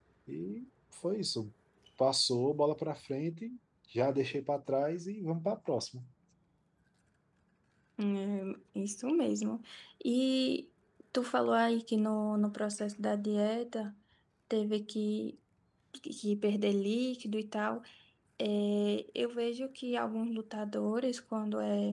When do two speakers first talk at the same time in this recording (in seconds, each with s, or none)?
none